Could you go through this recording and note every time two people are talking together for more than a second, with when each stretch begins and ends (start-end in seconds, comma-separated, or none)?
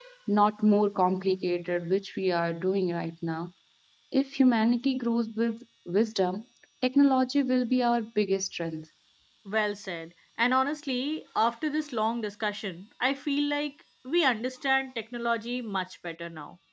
none